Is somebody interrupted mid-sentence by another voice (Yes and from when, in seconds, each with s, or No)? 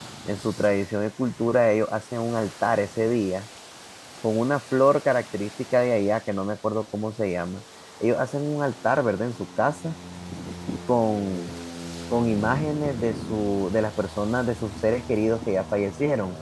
No